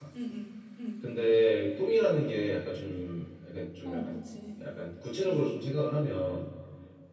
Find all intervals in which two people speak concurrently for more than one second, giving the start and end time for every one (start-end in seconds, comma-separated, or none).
none